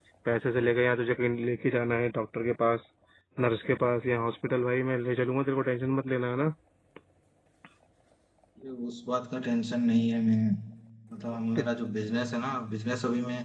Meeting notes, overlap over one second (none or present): none